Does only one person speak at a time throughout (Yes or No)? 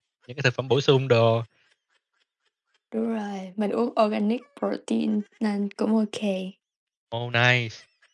Yes